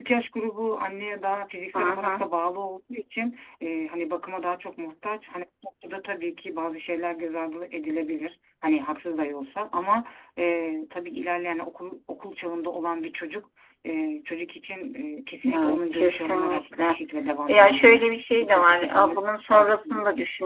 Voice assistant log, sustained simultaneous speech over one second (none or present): present